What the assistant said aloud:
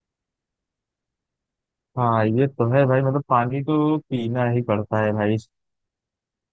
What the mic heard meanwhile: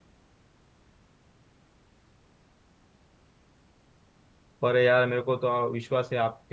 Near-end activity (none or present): present